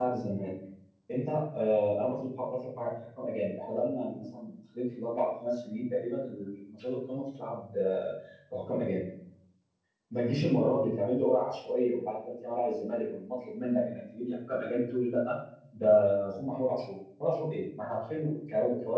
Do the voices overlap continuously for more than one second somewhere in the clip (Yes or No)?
No